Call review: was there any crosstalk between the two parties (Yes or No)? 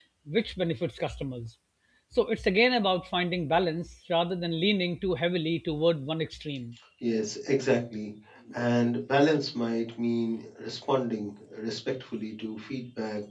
No